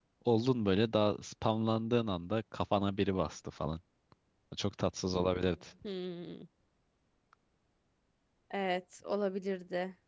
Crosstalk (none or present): none